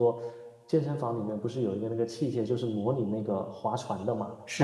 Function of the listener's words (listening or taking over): taking over